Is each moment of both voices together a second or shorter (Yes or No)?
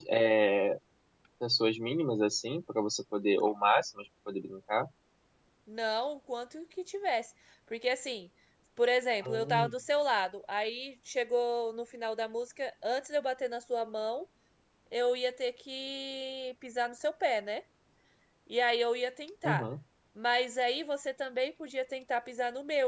Yes